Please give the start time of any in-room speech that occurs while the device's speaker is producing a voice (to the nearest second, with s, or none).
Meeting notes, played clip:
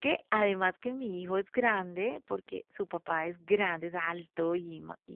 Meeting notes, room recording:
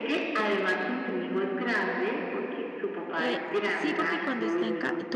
3 s